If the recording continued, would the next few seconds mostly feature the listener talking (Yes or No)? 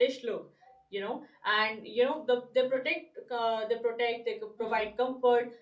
No